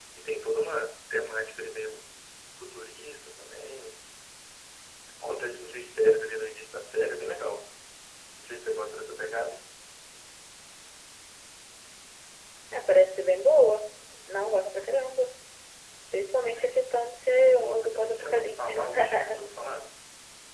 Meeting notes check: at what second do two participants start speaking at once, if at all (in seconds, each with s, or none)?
17.4 s